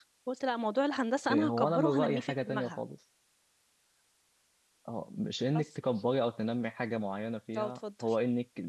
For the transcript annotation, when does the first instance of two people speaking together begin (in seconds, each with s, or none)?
1.3 s